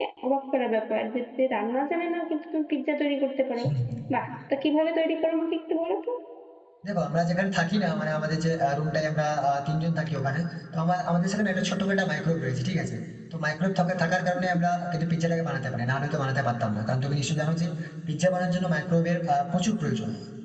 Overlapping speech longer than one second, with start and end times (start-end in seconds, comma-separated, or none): none